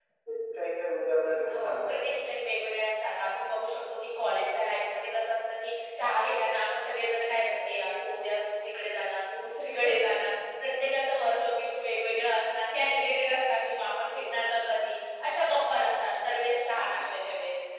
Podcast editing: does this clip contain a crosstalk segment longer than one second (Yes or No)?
No